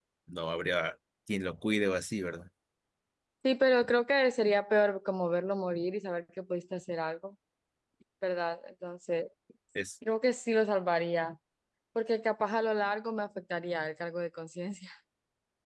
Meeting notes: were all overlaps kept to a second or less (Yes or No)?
Yes